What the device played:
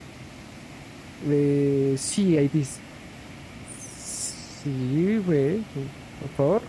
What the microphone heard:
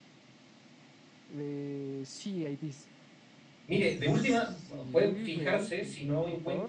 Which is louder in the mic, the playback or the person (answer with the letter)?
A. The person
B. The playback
A